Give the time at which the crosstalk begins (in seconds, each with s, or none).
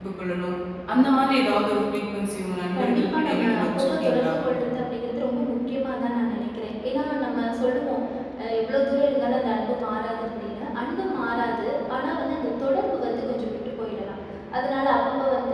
2.7 s